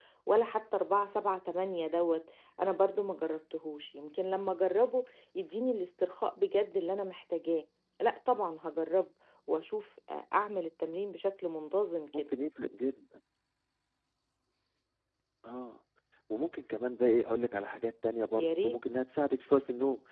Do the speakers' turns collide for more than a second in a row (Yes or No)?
No